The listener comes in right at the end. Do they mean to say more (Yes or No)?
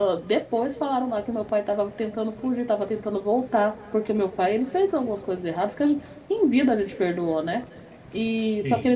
No